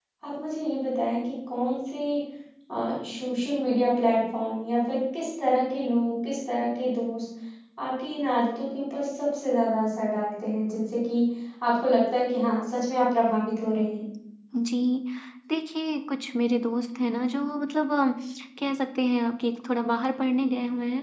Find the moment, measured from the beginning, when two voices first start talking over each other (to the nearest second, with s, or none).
none